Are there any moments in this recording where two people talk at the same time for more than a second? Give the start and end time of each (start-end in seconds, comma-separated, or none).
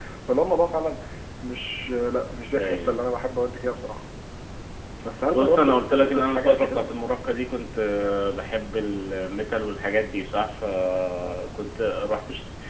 5.3-6.8